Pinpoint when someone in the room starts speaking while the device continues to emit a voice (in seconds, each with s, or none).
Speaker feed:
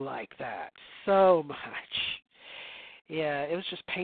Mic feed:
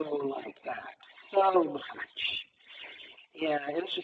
none